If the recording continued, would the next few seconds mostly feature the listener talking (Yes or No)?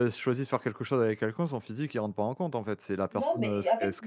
Yes